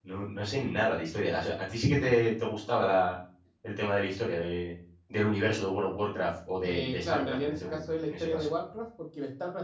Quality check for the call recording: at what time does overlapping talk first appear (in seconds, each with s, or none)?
6.6 s